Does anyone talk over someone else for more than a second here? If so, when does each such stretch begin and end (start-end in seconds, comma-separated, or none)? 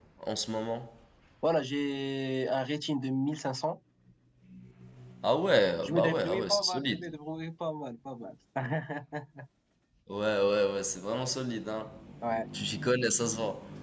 5.8-7.0